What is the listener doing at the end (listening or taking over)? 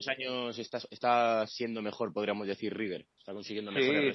taking over